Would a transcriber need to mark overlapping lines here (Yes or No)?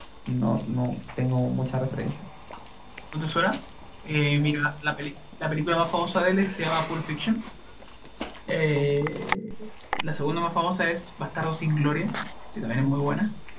No